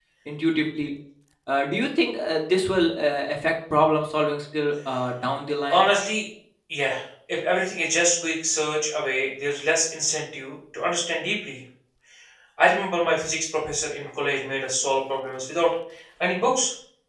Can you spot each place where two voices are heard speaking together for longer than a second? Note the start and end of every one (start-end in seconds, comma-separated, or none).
none